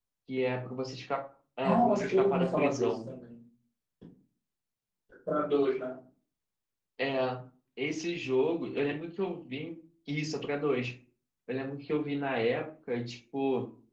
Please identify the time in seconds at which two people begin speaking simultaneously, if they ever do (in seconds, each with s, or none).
1.6 s